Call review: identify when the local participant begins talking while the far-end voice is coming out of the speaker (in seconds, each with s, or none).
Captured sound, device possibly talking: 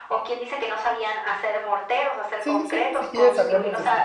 2.4 s